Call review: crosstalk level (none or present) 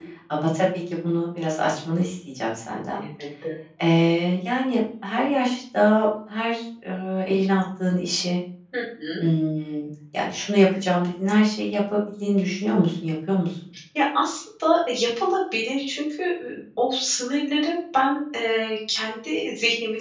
none